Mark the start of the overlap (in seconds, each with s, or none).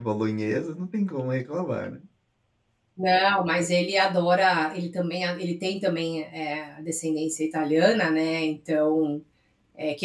none